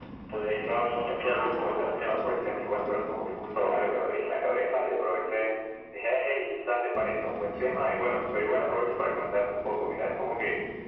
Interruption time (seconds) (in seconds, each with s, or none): 0.6 s